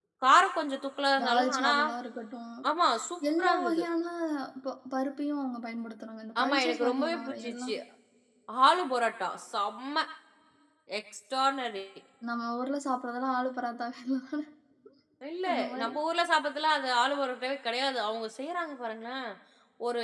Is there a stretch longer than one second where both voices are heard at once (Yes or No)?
Yes